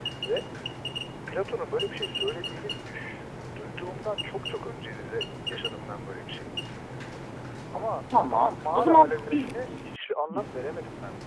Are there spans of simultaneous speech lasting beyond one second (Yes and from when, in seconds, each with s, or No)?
Yes, from 8.3 s